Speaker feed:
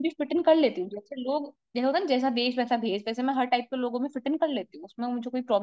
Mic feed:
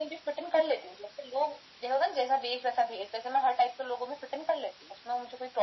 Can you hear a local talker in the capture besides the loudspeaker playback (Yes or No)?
No